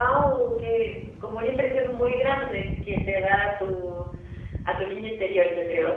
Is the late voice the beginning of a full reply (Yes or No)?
Yes